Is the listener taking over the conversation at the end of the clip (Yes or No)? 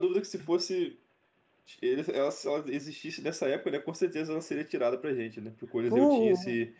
No